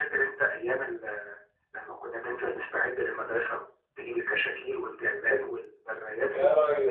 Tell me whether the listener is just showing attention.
No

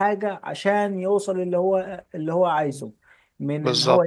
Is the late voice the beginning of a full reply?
No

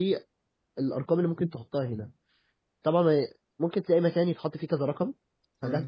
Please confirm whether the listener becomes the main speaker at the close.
No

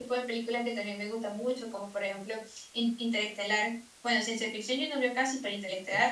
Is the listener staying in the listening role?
No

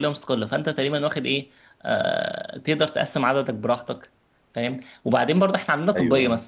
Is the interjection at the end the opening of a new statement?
No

